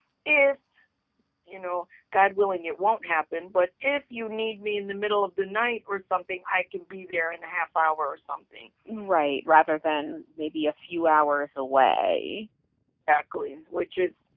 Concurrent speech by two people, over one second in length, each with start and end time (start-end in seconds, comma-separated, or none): none